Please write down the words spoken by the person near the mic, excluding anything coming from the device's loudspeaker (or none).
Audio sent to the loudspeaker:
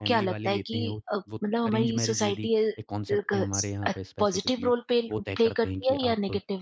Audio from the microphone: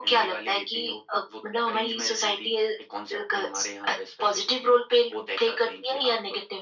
none